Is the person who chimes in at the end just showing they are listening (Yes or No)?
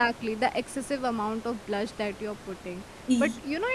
Yes